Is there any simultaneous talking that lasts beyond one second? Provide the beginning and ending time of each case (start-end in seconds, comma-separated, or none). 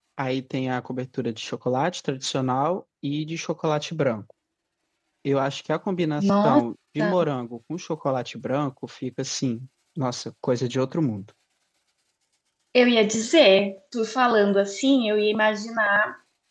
none